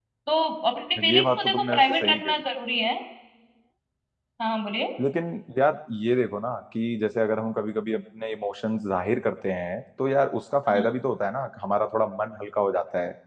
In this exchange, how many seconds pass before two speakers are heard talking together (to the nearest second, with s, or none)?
1 s